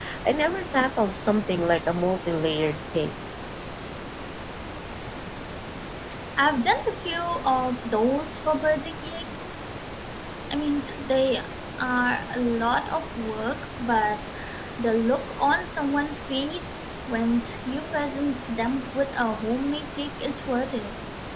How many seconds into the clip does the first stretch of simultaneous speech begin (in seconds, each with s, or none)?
none